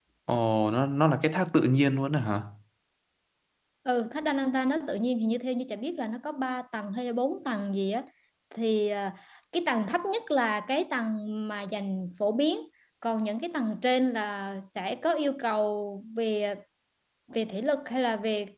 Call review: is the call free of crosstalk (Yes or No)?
Yes